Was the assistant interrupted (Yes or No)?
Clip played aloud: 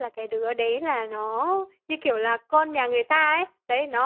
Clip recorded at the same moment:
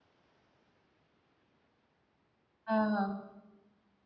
Yes